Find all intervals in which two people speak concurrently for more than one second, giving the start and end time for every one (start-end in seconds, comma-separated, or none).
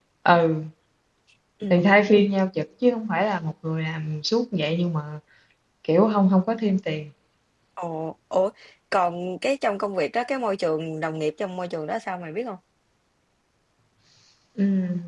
none